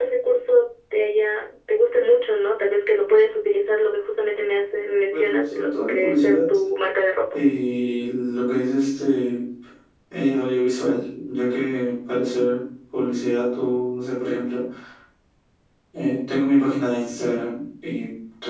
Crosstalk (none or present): present